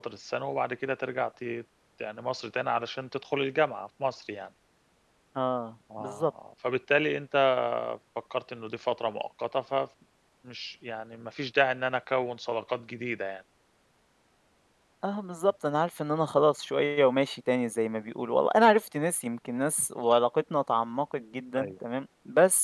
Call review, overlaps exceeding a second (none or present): none